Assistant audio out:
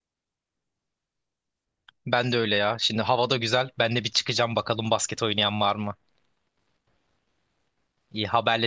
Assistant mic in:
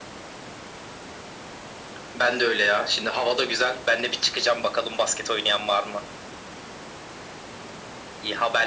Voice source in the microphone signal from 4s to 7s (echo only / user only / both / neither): echo only